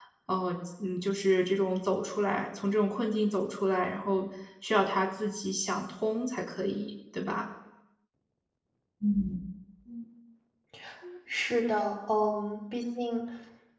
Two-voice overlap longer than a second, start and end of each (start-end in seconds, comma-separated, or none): none